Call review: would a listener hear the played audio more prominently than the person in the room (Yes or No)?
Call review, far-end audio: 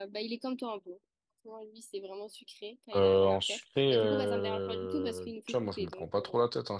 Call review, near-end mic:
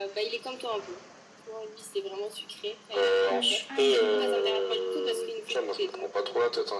Yes